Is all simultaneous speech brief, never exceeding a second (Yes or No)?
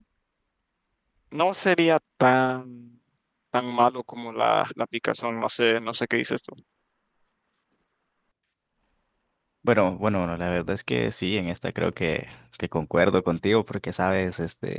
Yes